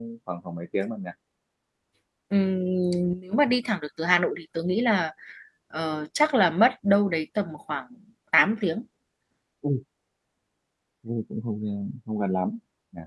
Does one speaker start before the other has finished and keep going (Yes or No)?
No